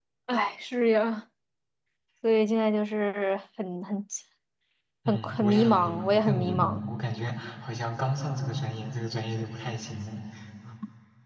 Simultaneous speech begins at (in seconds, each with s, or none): 5.1 s